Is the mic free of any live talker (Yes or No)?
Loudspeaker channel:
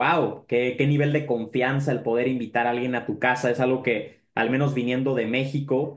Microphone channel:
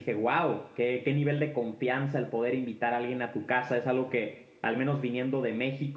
Yes